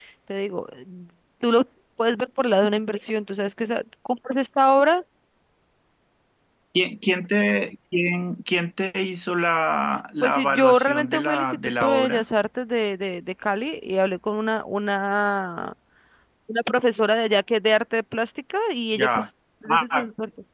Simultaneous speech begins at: 10.2 s

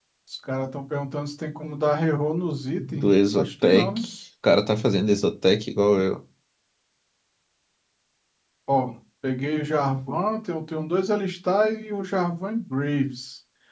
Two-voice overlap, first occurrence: 2.7 s

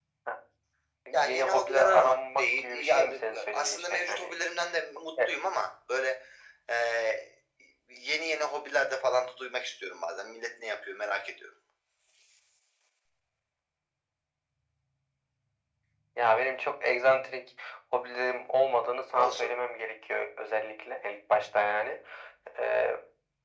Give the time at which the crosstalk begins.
1.1 s

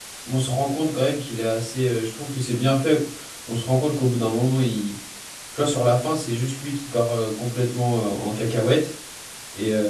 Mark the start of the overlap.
none

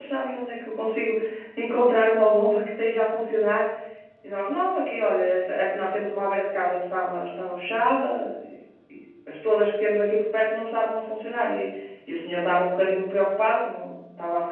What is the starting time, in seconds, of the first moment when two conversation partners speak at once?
none

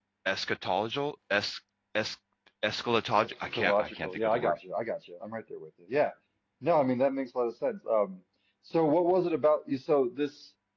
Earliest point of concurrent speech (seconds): 3.2 s

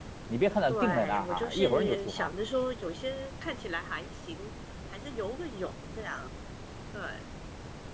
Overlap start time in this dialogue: 0.7 s

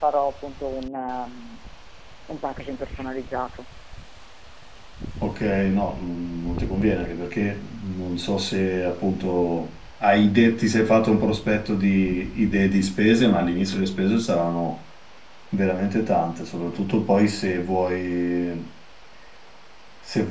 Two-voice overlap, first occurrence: none

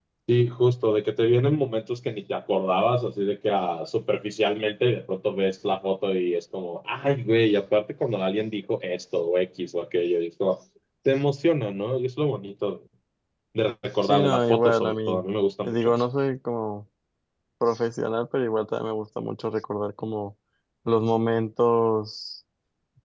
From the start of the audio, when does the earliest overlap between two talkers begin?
14.0 s

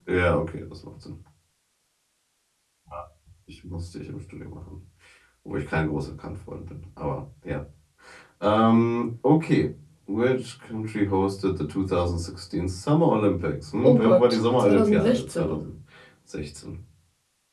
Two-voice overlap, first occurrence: 13.8 s

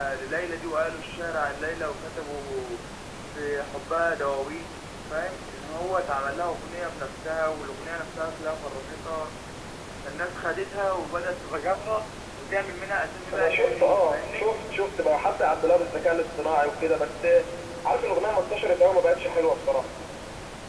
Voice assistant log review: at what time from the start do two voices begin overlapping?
13.3 s

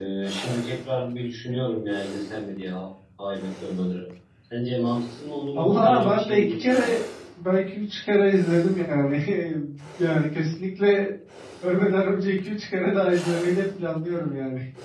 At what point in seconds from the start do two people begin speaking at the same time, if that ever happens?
5.5 s

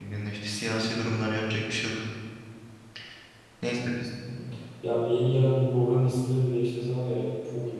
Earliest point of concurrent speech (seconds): none

